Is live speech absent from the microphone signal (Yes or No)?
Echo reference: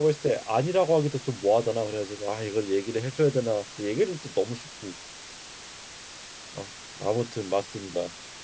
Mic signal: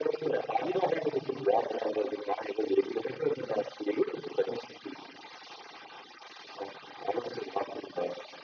Yes